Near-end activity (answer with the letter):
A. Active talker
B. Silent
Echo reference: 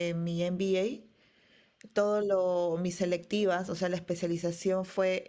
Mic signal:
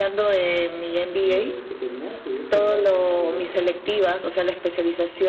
A